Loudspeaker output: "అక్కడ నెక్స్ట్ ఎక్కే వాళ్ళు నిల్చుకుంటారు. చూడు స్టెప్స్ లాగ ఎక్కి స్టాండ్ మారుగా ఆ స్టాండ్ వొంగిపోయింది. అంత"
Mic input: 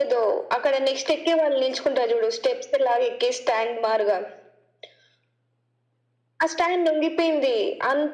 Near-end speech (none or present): none